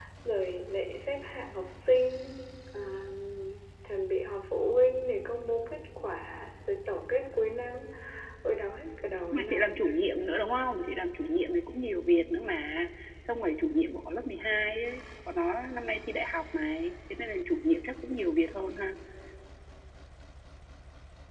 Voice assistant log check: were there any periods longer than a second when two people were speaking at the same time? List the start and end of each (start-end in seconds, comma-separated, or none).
none